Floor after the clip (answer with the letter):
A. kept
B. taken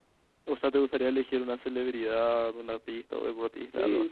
B